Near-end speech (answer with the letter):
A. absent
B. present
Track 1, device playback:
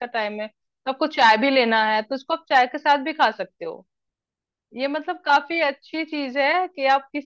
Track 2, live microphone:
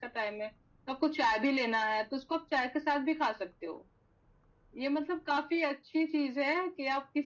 A